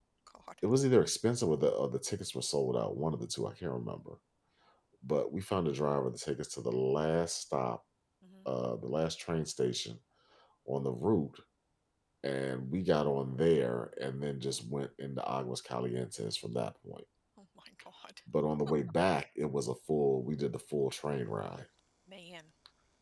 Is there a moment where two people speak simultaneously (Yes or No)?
No